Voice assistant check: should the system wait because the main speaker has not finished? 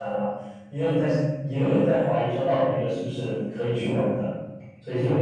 No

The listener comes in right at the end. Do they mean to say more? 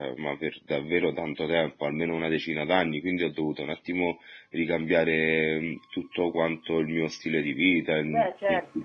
Yes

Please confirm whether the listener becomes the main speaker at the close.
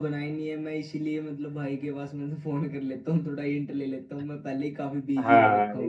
Yes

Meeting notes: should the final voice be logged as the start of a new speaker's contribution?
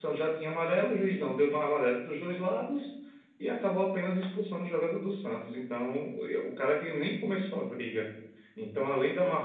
No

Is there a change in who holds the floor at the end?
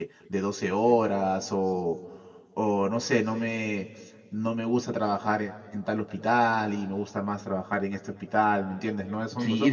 Yes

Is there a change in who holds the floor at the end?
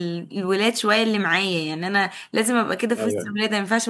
No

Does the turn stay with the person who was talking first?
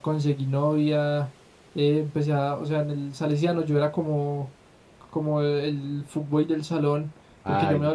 Yes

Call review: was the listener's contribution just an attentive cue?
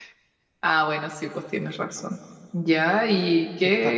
Yes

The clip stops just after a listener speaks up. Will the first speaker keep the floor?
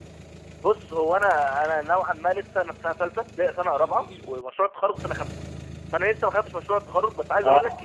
Yes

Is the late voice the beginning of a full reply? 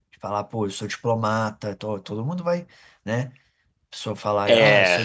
No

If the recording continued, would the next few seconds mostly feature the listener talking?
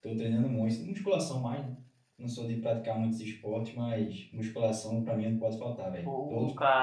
Yes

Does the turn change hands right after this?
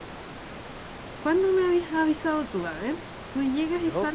No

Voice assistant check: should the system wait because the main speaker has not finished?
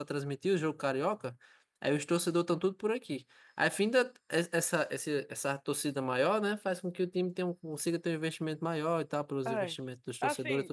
No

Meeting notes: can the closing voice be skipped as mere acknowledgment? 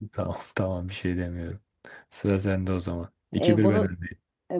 No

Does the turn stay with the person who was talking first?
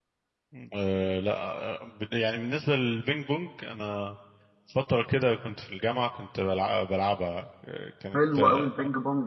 No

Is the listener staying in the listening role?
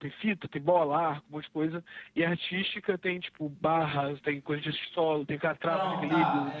No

